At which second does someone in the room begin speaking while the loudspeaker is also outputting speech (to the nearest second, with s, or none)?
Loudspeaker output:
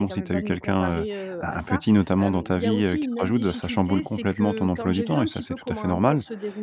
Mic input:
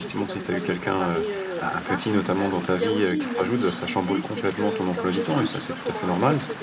none